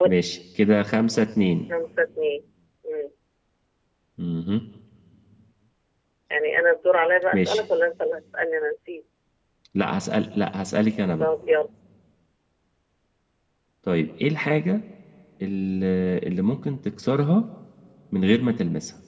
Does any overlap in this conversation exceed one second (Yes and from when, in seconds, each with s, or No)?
No